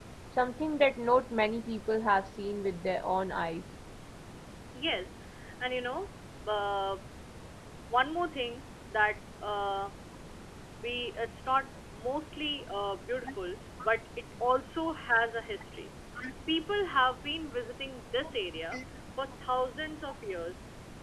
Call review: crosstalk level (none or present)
none